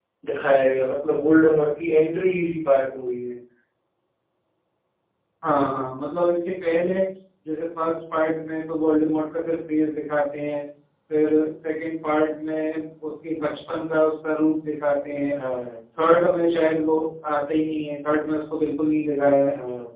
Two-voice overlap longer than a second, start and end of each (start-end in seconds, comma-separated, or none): none